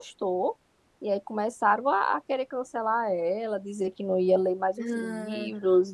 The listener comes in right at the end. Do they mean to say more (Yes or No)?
No